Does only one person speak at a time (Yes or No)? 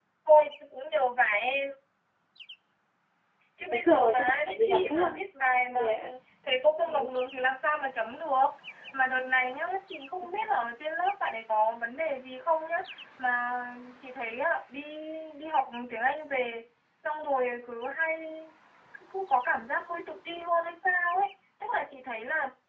No